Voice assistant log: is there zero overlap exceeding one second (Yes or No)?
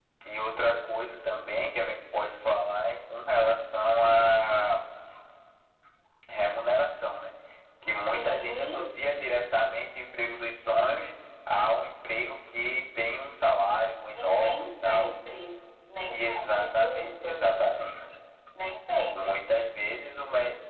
No